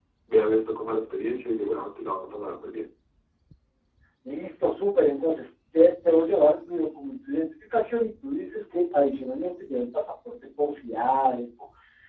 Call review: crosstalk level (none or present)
none